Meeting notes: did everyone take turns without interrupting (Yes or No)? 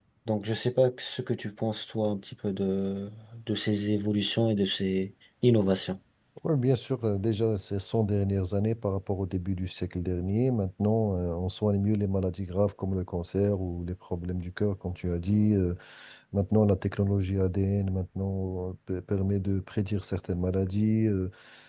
Yes